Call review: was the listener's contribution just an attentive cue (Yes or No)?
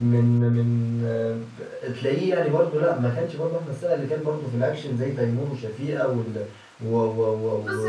No